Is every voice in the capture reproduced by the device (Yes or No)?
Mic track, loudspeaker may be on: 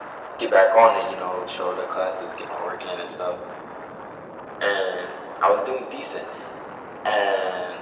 Yes